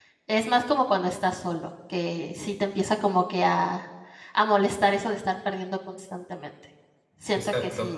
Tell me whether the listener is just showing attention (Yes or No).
Yes